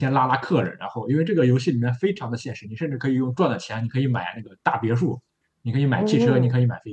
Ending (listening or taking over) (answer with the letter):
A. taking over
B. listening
B